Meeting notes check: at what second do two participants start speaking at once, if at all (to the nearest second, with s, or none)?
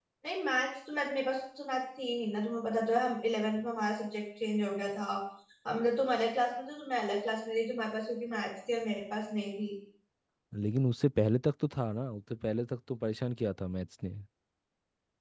none